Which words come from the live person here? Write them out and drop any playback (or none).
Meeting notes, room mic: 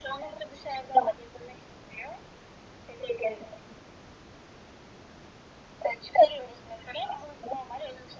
none